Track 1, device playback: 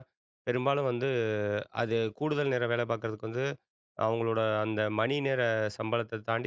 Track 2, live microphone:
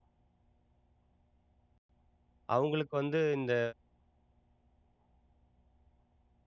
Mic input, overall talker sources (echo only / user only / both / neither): user only